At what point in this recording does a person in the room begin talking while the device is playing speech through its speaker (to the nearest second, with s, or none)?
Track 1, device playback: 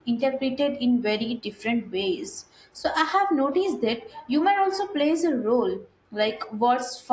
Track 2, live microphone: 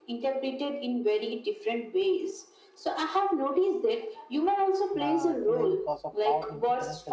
5 s